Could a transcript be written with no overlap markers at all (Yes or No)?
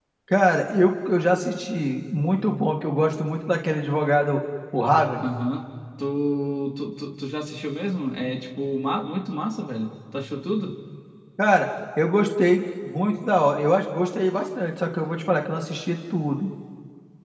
Yes